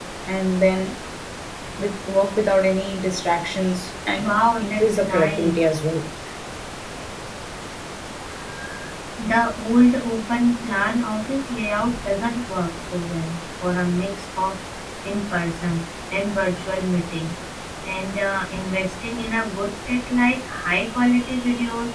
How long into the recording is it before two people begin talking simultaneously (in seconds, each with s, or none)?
4.2 s